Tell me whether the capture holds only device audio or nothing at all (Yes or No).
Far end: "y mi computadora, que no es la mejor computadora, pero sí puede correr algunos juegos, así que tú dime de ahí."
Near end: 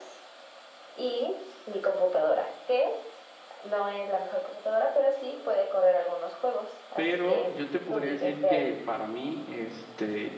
No